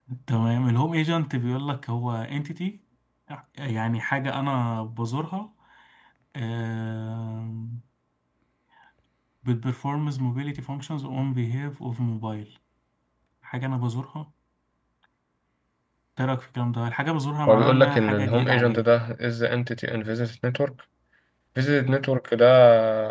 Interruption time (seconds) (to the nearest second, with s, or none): 17 s